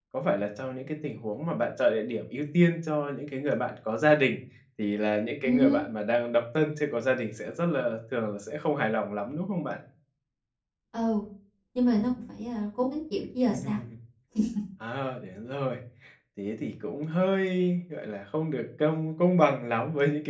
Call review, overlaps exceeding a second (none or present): none